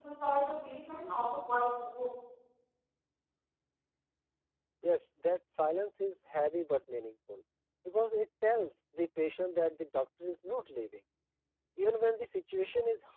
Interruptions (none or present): none